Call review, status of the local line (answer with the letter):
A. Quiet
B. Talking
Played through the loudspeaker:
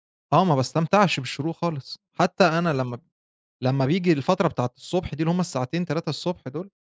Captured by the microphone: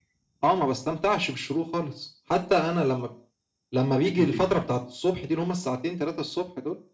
B